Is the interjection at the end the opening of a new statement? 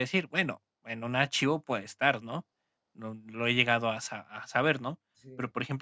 No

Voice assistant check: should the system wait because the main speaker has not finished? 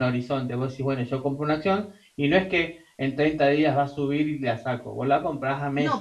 No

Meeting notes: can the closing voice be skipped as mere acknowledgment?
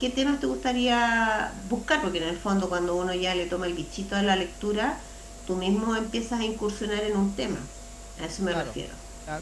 No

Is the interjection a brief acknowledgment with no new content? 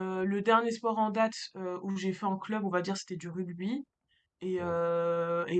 Yes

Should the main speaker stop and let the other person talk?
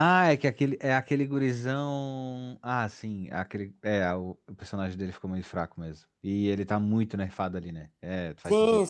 Yes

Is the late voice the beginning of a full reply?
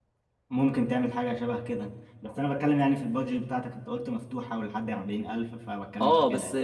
Yes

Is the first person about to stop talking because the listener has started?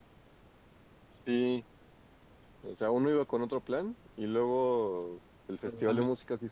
No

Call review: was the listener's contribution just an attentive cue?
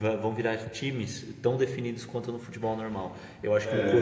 Yes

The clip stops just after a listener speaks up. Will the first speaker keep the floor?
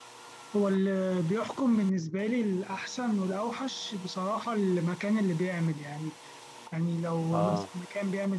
Yes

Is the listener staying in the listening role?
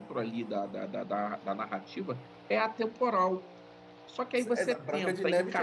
No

